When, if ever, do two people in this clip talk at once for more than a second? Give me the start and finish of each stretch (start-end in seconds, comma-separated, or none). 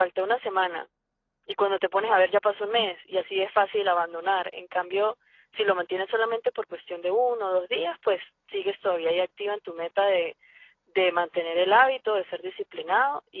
none